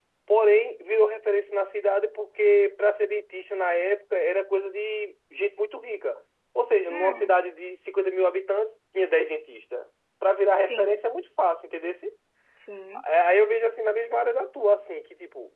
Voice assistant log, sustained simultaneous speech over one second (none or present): none